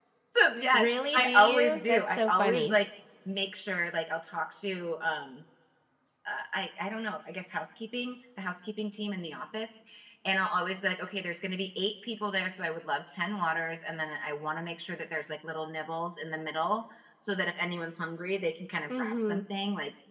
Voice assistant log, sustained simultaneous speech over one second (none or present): present